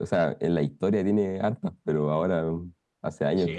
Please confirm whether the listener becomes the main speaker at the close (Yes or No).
Yes